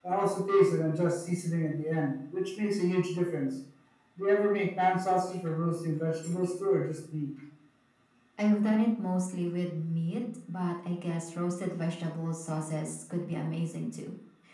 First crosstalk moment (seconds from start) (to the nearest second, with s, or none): none